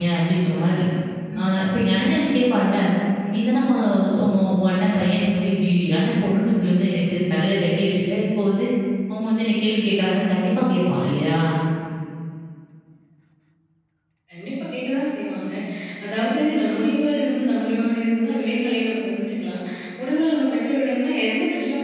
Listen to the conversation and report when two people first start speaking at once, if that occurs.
none

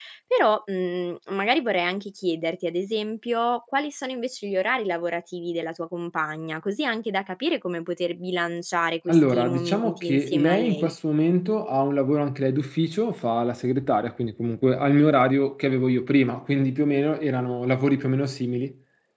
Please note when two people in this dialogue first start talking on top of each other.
9.1 s

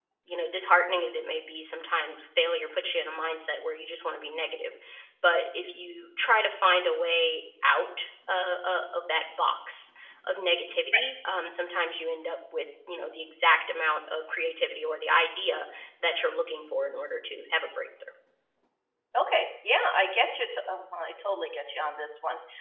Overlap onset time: none

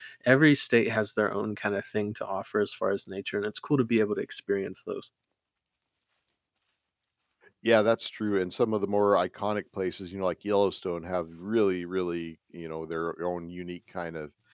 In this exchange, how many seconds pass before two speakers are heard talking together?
none

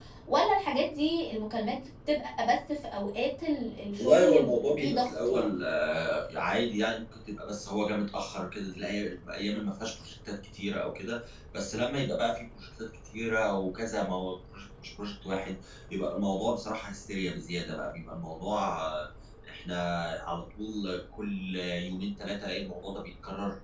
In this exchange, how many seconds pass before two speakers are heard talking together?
4.0 s

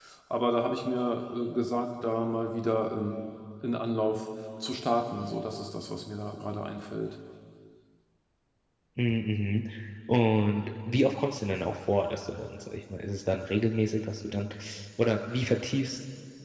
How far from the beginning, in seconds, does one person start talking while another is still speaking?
none

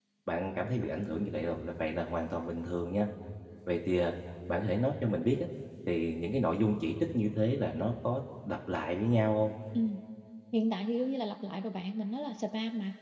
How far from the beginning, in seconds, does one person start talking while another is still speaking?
none

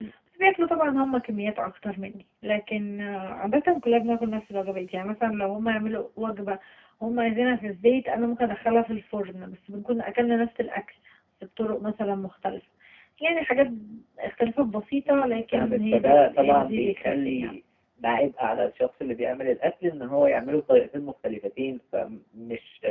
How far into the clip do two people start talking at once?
15.1 s

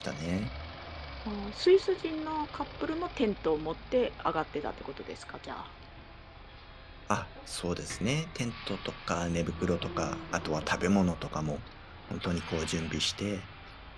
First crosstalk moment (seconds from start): none

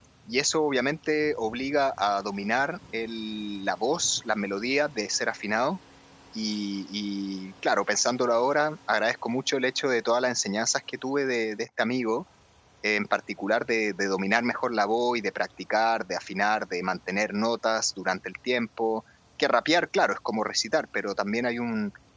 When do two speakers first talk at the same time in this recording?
none

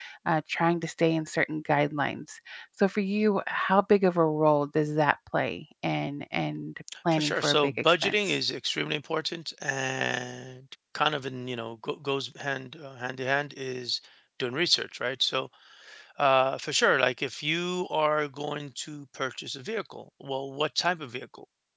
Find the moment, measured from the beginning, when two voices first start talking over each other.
6.9 s

